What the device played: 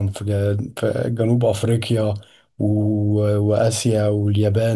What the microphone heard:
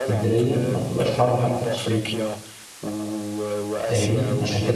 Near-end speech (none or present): present